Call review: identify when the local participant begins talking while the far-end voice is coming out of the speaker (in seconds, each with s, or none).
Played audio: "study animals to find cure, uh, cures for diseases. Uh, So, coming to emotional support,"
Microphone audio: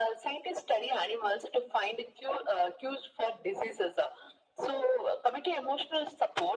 none